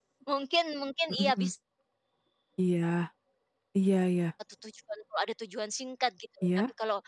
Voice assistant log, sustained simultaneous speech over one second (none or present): none